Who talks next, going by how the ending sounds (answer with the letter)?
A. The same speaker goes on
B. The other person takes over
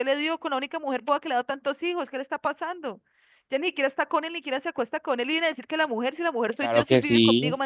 B